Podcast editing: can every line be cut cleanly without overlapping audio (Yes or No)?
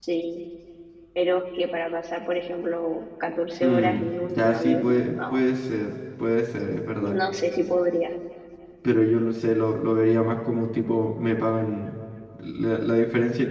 No